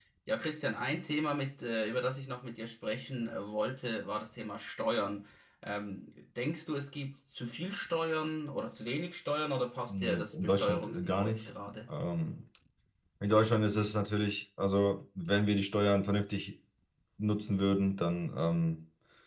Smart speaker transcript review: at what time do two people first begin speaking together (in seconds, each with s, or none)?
9.9 s